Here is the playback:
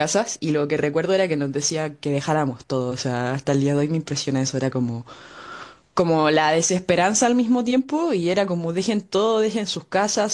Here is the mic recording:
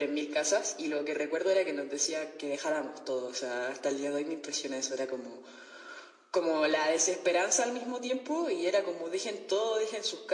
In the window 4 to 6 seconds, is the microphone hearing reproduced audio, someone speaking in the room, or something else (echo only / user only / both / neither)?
echo only